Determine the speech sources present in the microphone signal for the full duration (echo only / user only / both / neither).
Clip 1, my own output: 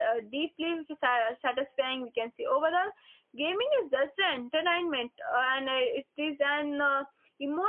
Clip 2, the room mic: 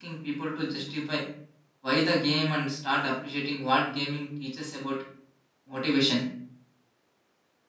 user only